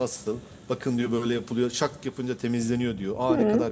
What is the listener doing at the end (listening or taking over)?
listening